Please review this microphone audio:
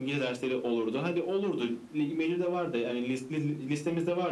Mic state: echo only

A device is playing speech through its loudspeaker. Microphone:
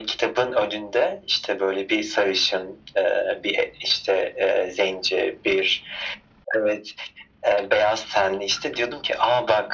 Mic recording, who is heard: echo only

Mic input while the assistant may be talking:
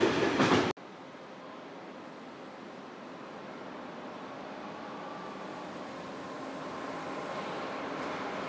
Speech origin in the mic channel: neither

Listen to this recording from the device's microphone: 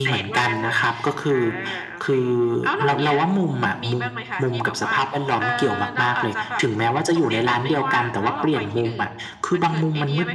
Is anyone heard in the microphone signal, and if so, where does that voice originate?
echo only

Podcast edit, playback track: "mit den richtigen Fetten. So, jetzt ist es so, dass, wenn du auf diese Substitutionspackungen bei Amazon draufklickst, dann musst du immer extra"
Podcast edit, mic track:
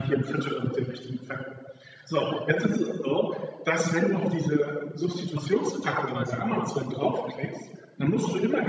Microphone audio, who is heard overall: both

